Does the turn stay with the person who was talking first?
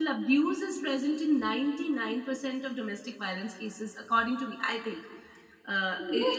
No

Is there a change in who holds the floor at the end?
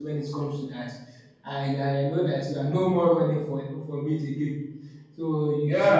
Yes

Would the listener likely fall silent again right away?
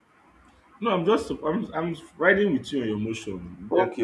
No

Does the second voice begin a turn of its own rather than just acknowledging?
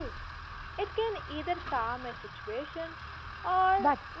Yes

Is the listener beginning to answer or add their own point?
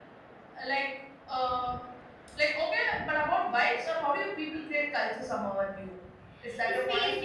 Yes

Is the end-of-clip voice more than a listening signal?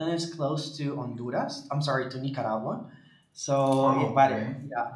No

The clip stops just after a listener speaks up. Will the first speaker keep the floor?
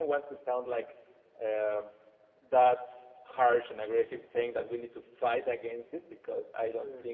Yes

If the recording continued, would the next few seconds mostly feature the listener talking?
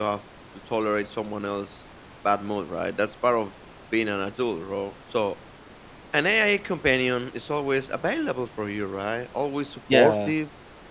No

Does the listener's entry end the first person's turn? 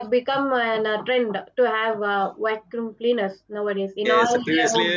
Yes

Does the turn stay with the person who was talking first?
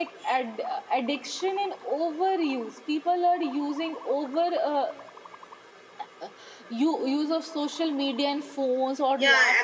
No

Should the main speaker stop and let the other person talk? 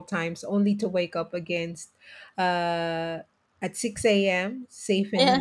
No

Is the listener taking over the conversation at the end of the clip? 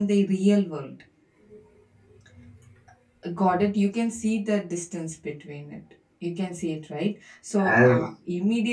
No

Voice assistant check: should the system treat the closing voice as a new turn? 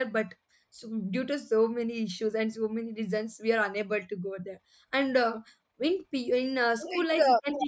Yes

